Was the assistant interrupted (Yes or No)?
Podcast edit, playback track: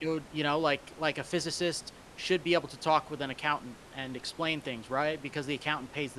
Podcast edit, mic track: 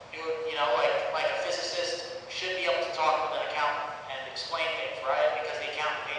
No